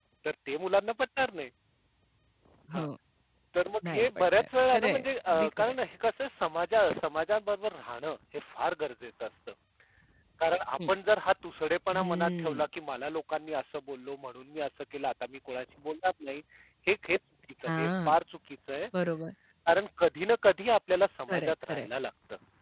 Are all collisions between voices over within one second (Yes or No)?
No